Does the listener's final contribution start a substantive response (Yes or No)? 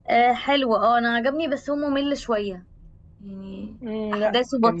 Yes